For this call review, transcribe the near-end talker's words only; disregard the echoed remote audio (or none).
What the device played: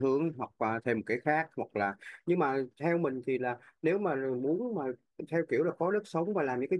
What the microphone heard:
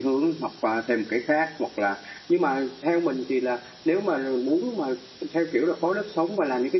none